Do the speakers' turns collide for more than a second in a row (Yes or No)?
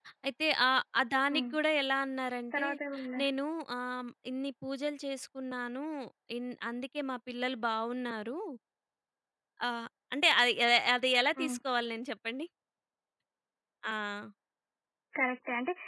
No